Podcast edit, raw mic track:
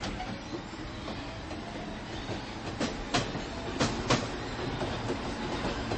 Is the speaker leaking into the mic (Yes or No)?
No